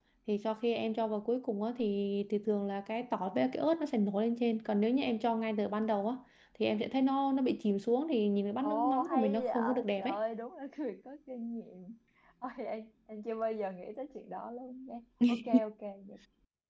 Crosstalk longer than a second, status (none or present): present